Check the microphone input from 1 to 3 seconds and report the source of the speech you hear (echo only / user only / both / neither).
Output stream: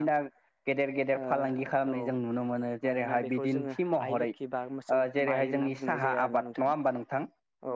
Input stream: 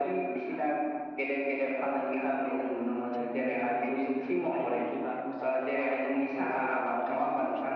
echo only